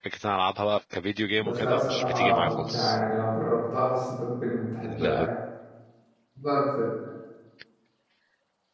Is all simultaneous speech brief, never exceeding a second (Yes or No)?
No